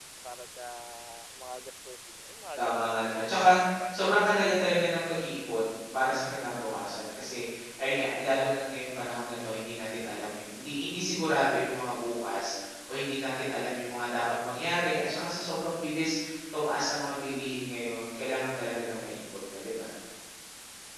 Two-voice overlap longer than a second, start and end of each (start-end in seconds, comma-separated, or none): none